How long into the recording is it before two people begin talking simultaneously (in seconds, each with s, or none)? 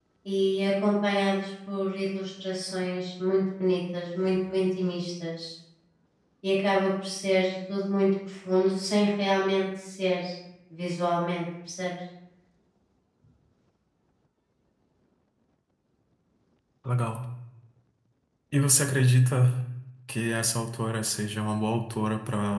none